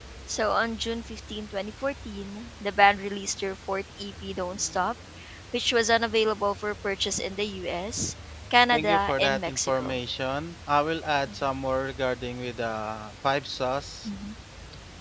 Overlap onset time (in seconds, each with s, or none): 8.7 s